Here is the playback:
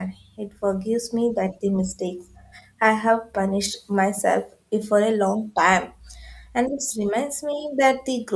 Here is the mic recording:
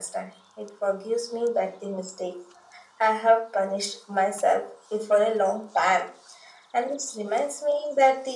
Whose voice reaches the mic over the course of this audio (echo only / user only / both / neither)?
echo only